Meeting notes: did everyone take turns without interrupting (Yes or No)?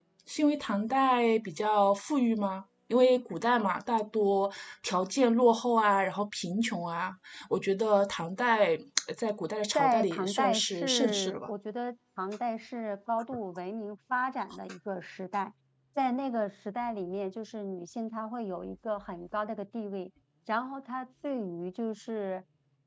No